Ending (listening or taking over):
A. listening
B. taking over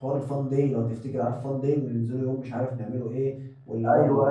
A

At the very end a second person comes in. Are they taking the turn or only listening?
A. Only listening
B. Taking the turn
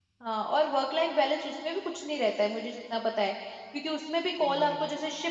A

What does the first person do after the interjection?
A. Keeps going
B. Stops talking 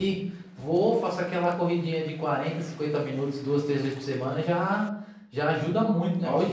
B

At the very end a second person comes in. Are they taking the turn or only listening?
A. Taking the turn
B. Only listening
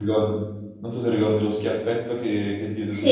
A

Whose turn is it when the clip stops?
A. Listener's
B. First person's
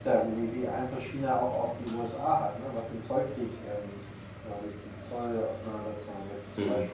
B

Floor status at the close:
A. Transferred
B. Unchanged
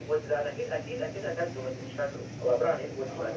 A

